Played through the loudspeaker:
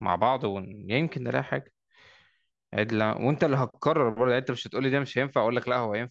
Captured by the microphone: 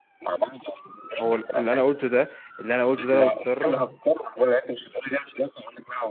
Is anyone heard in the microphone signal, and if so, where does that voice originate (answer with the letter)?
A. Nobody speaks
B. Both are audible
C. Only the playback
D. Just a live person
B